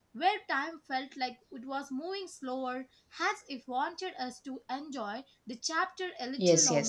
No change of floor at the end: No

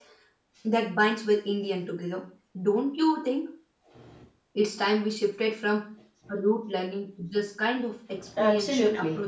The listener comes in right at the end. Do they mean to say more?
Yes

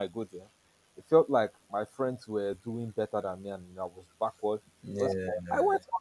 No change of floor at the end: Yes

